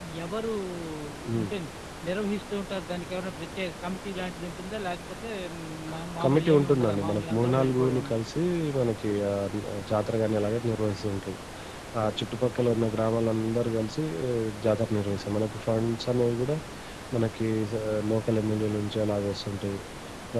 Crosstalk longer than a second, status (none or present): present